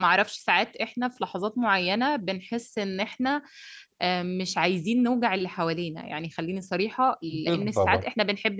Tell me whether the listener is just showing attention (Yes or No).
Yes